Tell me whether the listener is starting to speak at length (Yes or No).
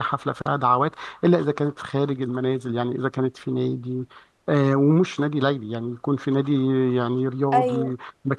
No